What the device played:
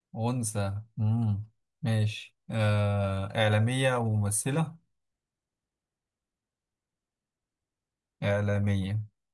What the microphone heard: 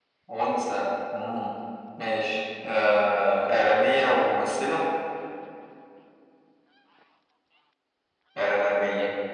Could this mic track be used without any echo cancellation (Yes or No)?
No